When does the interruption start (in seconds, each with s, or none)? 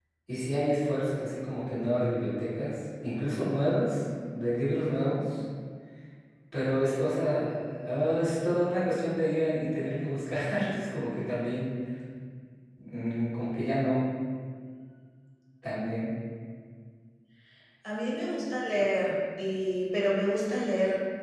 none